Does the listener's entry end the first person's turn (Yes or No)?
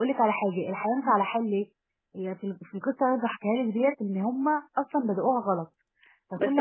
Yes